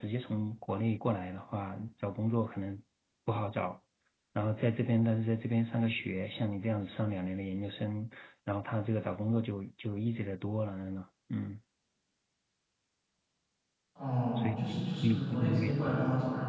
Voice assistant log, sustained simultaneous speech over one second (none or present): present